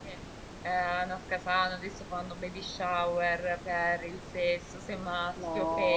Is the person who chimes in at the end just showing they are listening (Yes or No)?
No